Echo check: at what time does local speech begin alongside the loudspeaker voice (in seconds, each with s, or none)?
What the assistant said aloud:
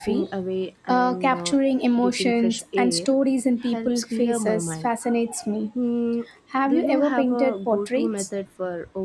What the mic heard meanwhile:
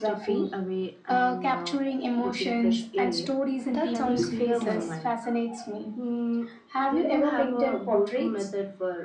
3.7 s